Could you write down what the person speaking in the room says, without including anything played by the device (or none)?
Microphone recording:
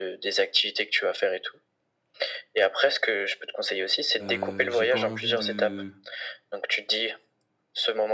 heu, j'ai pas envie de